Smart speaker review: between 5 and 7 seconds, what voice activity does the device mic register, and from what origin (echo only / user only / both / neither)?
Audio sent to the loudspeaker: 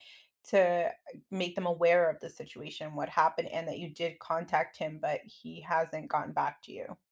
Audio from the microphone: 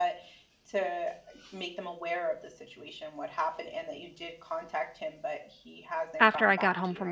both